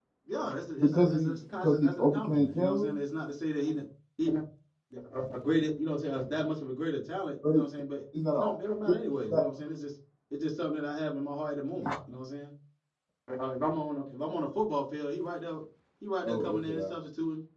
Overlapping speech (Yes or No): Yes